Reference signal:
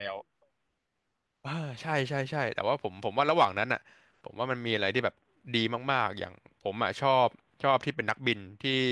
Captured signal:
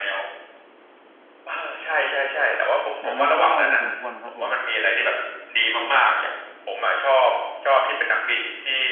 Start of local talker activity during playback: 3.0 s

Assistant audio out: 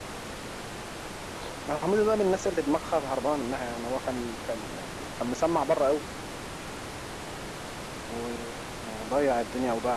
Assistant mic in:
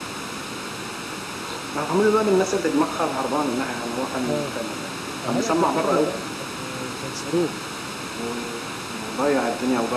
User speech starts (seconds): 4.3 s

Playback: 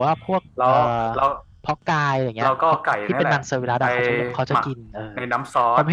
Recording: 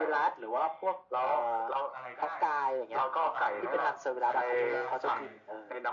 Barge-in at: 1.9 s

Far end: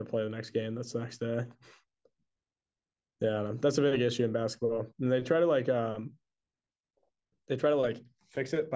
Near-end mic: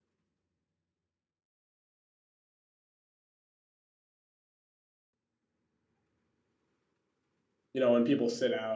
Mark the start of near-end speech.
7.7 s

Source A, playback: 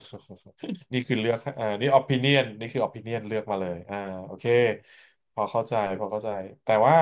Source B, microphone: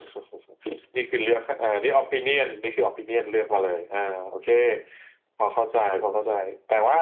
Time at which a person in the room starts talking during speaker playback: none

